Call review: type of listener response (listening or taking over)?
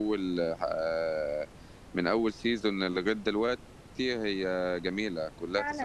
taking over